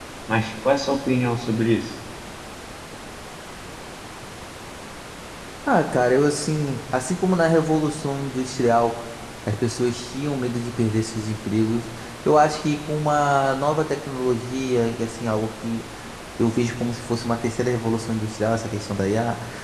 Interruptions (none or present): none